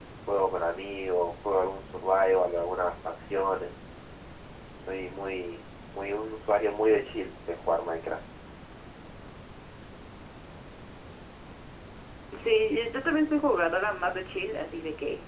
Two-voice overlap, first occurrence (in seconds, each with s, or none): none